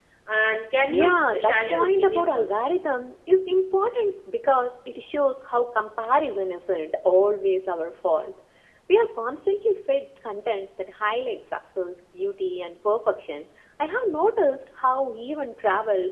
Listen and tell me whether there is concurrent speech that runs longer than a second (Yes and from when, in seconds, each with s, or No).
Yes, from 0.9 s